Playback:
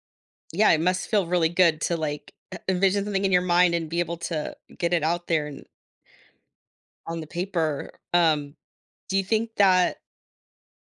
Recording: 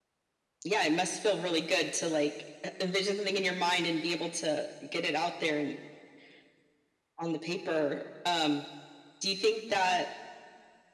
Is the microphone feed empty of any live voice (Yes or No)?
Yes